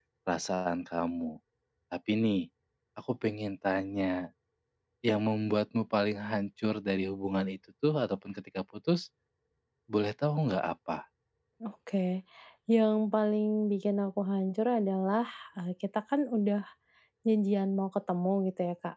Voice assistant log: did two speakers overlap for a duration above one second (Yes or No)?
No